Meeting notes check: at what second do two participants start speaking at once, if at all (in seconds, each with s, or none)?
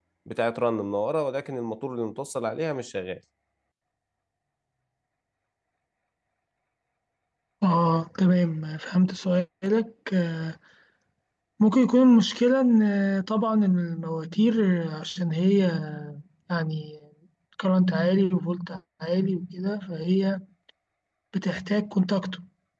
none